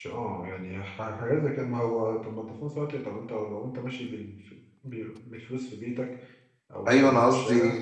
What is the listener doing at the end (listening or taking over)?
taking over